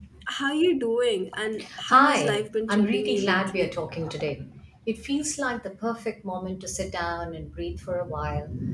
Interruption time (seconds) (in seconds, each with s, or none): 1.9 s